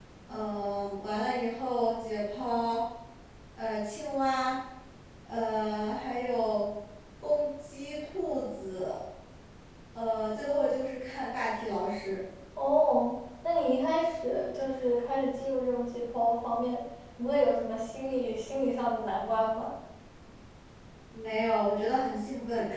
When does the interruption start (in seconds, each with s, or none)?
none